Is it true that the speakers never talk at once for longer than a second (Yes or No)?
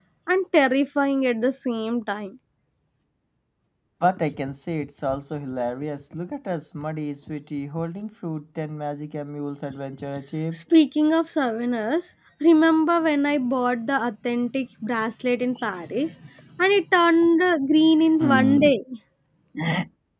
Yes